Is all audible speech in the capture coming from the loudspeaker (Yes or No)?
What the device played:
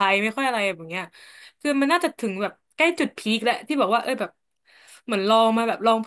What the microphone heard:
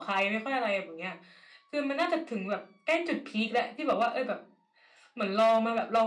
Yes